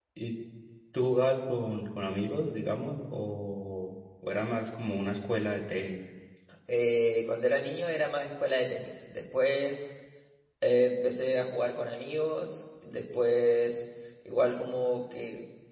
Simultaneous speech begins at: none

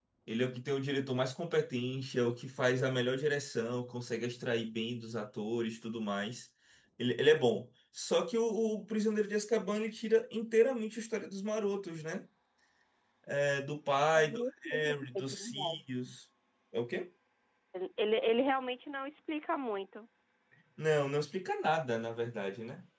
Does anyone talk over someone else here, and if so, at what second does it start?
14.2 s

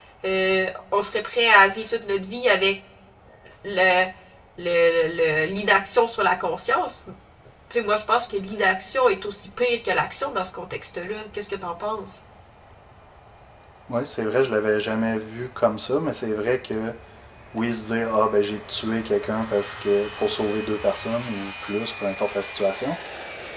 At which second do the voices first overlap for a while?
none

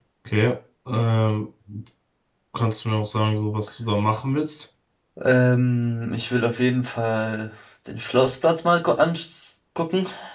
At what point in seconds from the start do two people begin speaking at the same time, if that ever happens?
none

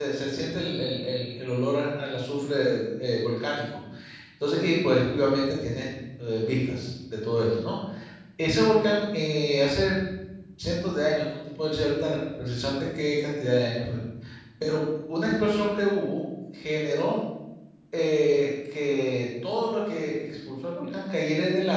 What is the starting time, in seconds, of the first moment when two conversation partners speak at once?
none

